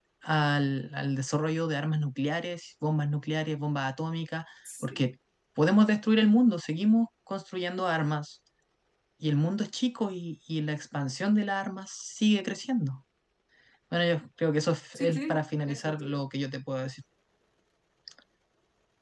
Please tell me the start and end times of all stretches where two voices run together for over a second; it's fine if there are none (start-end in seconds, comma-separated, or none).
14.9-16.2